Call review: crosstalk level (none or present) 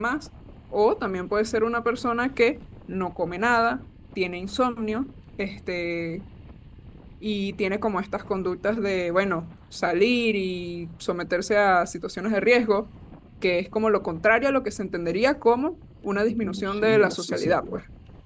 present